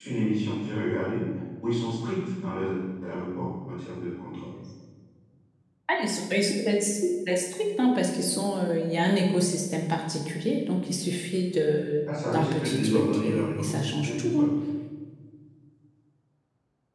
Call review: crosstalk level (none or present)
present